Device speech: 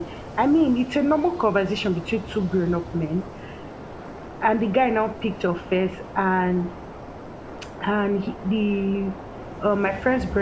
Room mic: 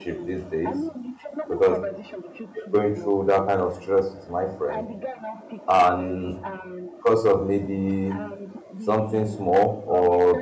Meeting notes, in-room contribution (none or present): present